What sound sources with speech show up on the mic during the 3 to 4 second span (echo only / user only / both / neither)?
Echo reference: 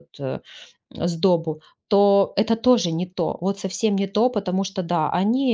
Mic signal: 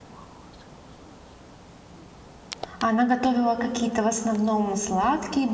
user only